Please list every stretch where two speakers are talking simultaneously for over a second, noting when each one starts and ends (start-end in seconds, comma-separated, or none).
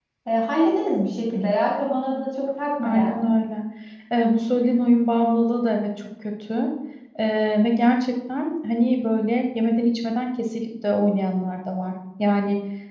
none